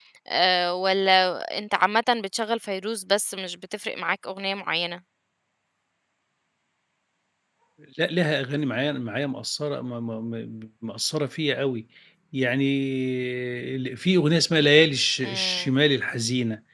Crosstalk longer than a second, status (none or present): none